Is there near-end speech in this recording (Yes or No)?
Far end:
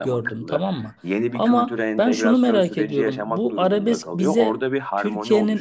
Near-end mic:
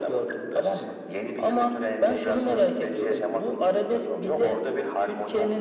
No